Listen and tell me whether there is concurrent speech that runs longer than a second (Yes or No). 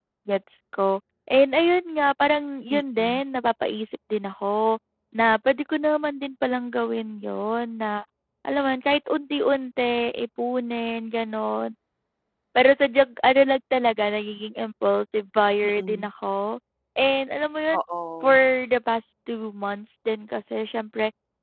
No